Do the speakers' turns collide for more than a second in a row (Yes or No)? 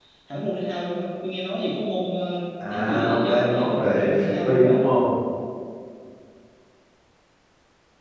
Yes